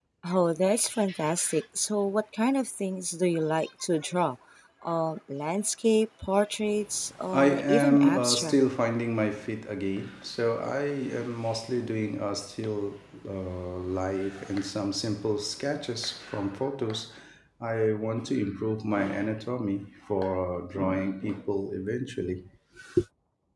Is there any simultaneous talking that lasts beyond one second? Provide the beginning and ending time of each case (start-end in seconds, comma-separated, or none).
7.3-8.5